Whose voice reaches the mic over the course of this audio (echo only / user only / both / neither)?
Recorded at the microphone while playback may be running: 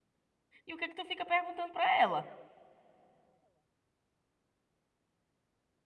user only